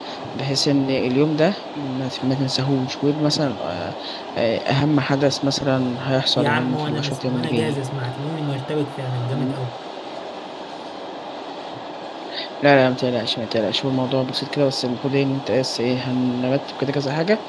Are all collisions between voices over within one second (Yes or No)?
No